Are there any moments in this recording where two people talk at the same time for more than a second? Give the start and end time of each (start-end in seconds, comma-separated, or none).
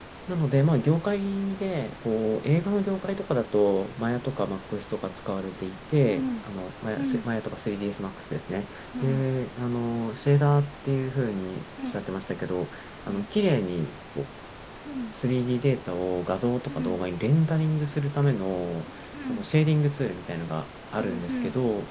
none